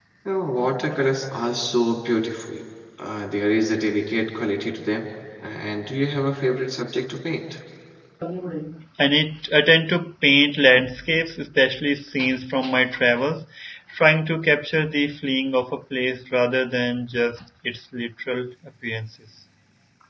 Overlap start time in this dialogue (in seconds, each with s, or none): none